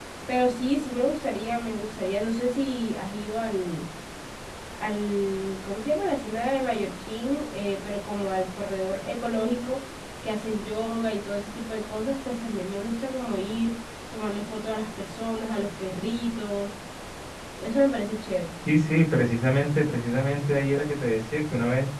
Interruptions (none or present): none